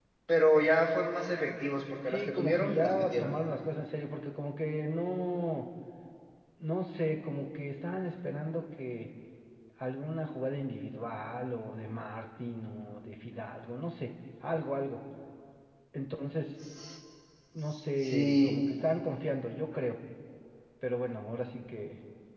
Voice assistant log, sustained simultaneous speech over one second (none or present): present